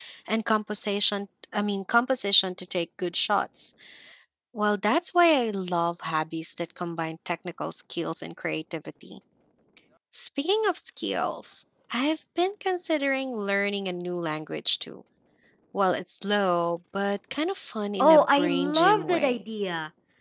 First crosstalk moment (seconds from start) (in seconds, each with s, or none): 18.0 s